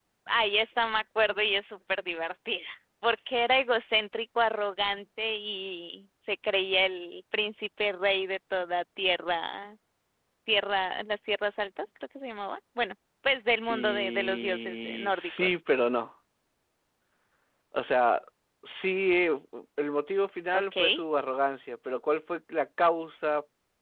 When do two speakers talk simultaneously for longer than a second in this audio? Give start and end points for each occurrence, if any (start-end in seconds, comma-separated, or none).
13.7-15.6